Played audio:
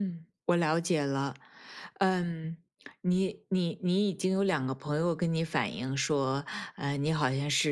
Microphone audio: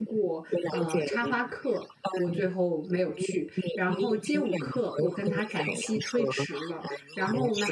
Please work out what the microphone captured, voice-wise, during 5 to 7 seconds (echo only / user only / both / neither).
both